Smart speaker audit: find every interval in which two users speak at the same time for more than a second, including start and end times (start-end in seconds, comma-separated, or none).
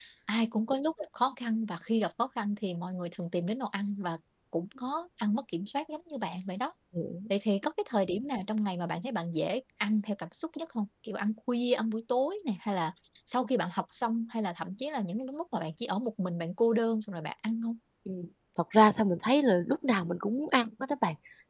none